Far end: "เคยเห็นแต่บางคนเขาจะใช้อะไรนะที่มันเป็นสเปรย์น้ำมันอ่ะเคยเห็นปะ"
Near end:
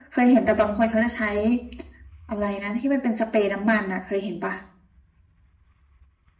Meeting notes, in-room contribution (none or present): none